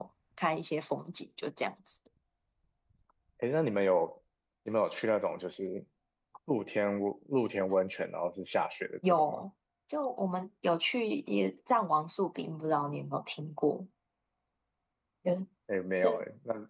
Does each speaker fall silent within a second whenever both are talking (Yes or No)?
Yes